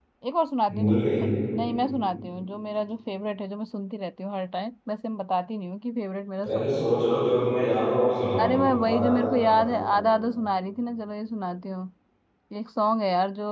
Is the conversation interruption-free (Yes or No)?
No